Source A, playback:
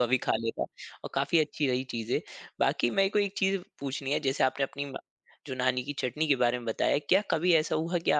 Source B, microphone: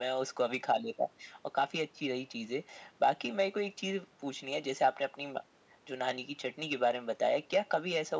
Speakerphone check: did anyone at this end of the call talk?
No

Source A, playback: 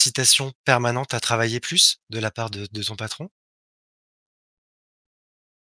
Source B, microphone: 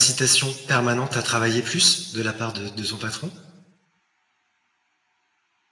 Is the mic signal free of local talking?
Yes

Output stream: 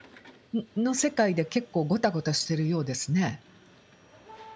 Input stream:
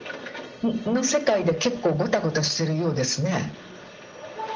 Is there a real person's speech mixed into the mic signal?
No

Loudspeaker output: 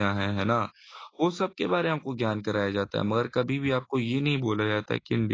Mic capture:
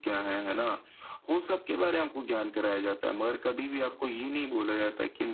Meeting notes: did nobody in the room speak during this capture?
Yes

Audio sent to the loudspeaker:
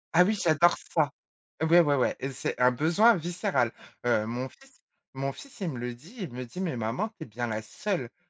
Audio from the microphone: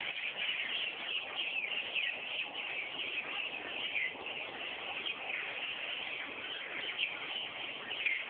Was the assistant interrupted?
No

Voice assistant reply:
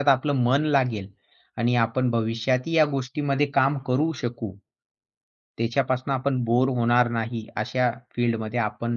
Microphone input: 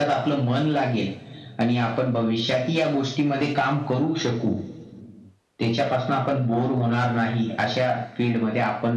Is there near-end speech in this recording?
No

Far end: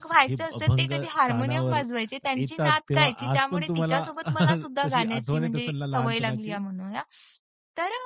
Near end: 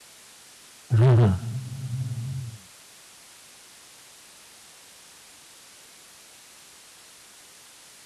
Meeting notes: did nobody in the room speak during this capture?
No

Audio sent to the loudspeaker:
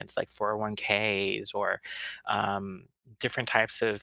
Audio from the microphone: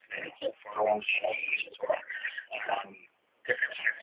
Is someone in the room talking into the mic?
No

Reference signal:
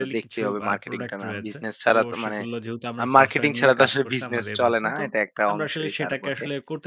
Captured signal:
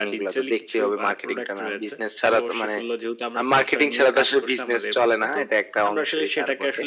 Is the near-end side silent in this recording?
Yes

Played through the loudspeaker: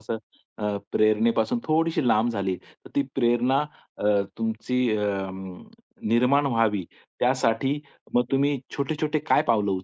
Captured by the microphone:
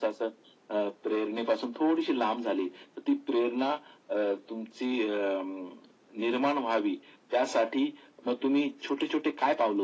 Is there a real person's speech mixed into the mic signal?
No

